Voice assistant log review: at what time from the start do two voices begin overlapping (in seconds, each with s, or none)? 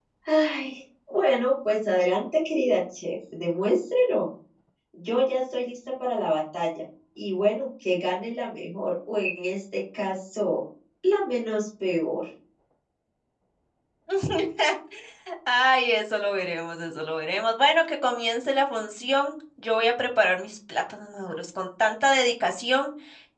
none